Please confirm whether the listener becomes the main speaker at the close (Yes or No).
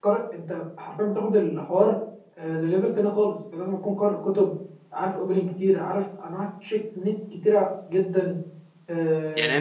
Yes